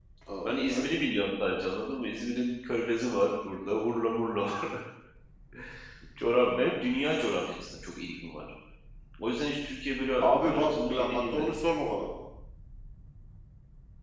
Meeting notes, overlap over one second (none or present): present